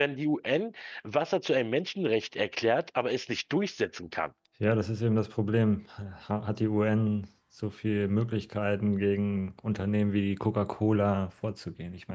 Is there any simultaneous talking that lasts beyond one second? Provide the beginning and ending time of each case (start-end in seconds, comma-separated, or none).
none